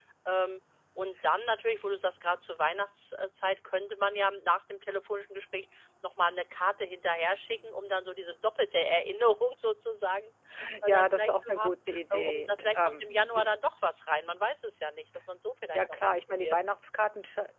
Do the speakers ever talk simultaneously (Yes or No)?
Yes